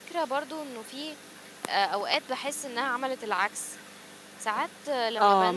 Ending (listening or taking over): taking over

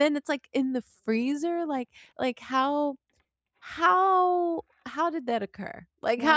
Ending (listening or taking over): listening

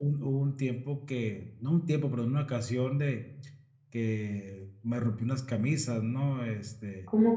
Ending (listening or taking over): listening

